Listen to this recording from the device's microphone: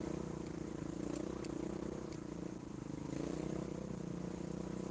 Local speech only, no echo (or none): none